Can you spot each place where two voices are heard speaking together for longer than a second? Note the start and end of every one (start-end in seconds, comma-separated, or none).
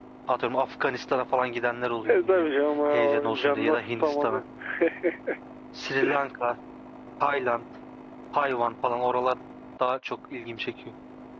2.9-4.4